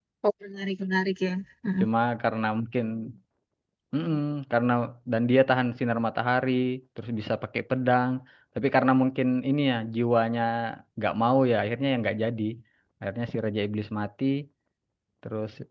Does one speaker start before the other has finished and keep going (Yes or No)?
No